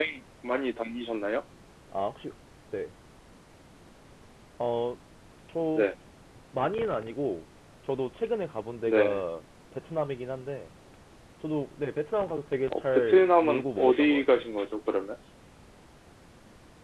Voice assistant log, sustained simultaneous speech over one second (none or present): present